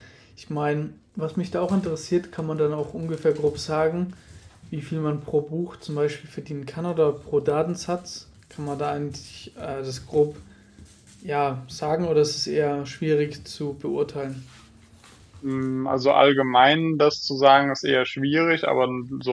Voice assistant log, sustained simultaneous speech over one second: none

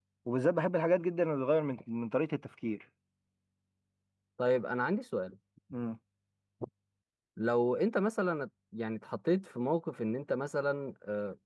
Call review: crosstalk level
none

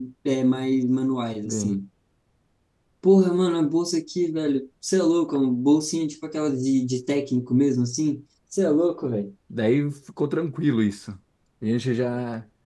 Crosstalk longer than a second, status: none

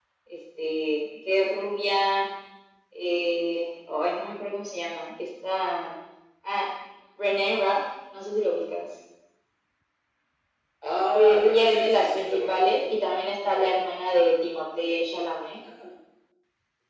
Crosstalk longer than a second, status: present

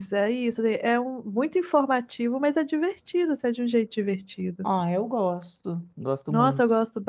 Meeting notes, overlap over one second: none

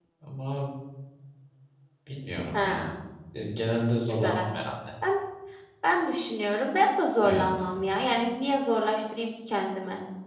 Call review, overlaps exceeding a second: none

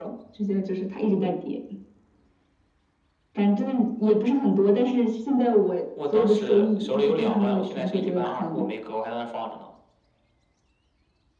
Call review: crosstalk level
present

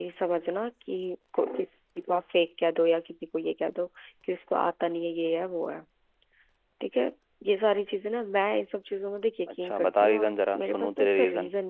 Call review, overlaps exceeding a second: present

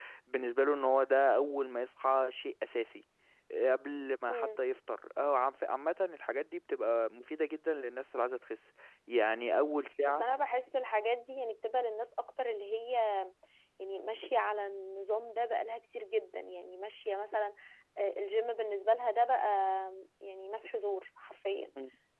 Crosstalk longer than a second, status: none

